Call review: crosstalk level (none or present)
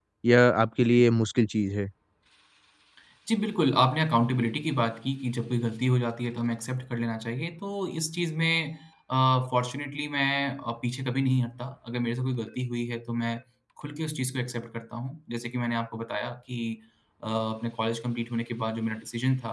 none